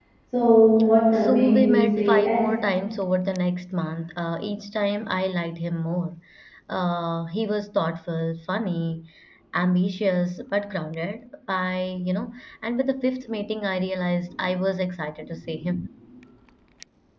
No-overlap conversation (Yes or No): No